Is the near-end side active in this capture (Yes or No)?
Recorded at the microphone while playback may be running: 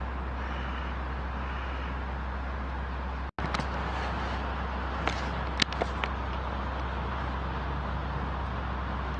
No